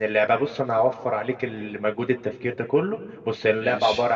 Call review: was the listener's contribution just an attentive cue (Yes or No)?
Yes